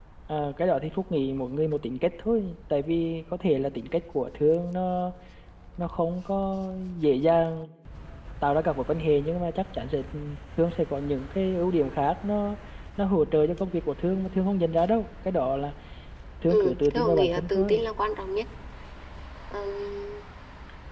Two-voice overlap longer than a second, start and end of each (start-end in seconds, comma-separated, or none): 16.5-17.8